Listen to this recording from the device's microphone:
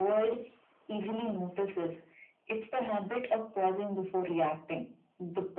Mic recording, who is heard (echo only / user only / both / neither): echo only